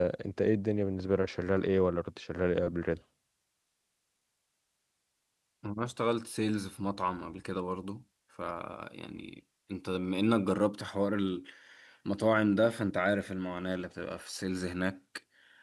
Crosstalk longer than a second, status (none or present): none